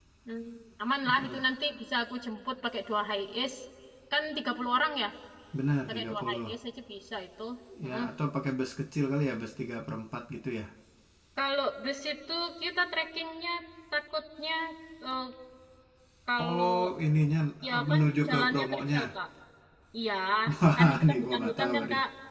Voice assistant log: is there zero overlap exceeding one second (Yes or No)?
No